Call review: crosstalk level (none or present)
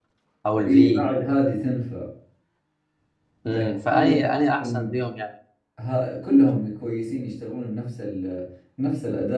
present